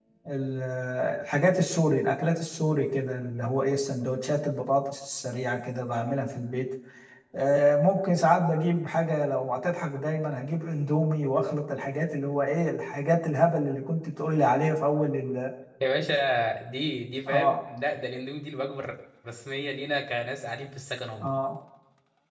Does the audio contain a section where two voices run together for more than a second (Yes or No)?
No